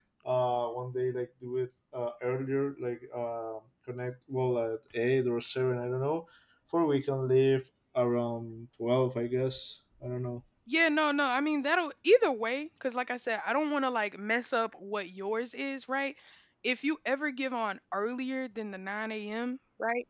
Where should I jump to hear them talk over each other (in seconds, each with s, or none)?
none